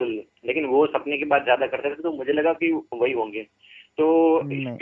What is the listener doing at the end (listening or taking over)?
listening